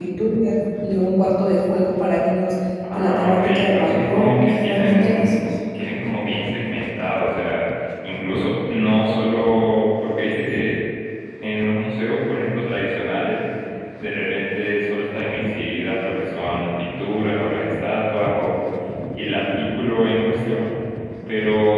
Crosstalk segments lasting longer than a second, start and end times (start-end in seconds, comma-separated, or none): 2.9-5.3